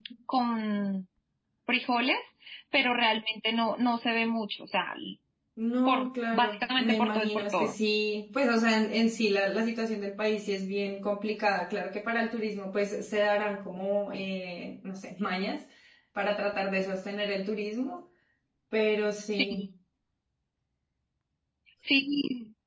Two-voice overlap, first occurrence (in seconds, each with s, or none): 5.9 s